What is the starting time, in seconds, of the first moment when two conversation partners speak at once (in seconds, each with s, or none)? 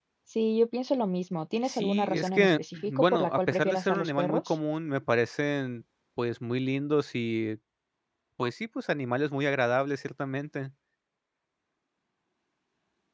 1.6 s